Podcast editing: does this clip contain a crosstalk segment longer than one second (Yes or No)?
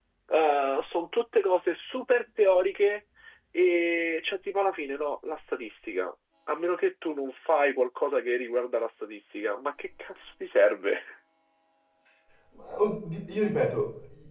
No